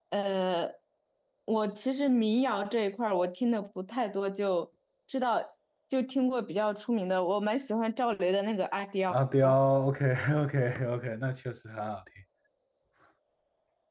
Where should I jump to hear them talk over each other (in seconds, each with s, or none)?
none